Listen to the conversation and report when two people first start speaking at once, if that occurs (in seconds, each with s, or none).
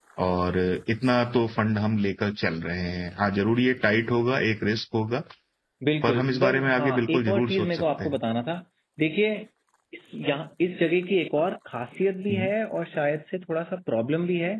6.0 s